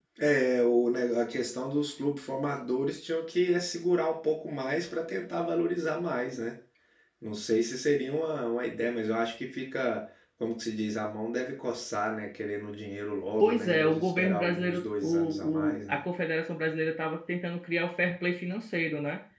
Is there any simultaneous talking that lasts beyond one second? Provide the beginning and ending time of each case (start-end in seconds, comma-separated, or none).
13.4-16.0